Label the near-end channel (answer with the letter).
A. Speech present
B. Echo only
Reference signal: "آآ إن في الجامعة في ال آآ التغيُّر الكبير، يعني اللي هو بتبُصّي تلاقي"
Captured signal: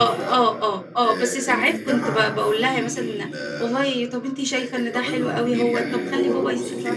A